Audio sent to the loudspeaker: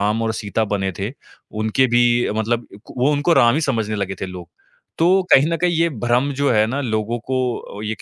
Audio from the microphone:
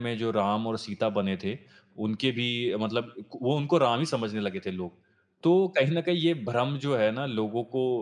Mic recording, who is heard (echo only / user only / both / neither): echo only